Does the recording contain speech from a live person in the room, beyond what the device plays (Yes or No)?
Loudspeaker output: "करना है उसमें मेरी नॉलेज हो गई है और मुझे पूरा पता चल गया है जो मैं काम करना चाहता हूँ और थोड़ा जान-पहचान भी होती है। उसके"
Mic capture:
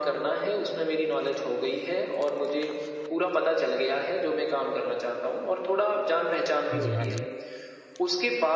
Yes